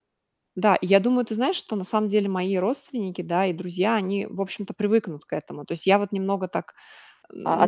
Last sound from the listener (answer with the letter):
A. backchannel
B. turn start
B